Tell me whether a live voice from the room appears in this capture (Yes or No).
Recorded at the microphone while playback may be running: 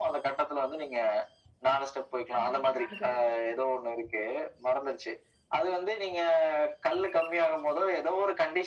Yes